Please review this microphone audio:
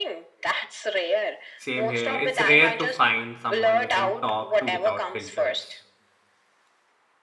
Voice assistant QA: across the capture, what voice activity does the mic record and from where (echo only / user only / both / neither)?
both